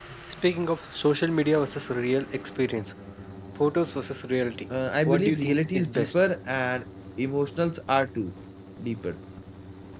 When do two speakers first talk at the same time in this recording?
4.7 s

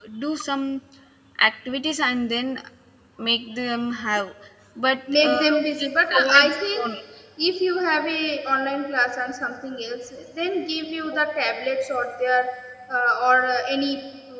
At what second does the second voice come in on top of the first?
5.1 s

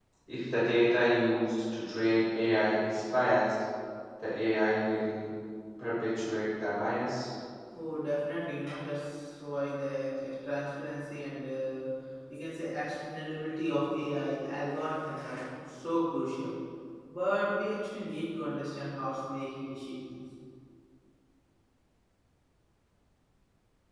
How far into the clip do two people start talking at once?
none

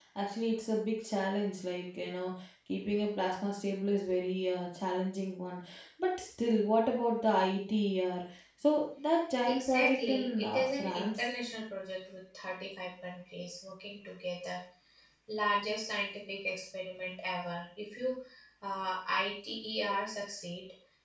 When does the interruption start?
9.4 s

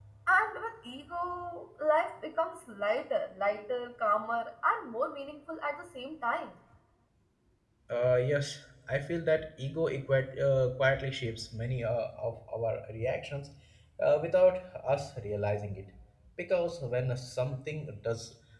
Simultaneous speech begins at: none

